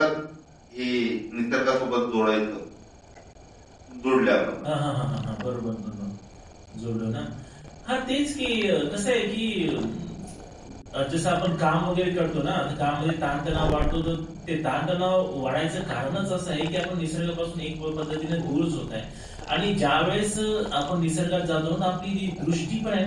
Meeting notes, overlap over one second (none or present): none